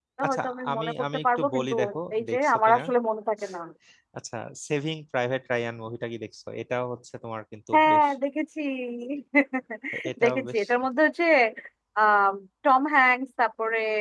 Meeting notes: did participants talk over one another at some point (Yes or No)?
Yes